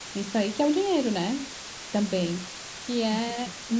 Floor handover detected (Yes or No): No